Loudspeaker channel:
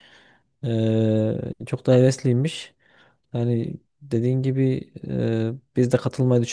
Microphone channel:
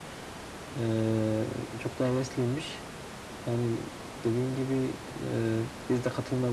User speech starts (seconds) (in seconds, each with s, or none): none